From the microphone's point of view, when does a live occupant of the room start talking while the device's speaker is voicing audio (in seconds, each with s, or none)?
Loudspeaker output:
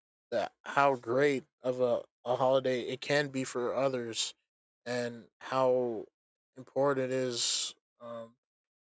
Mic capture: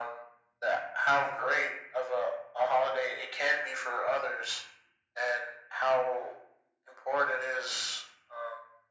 none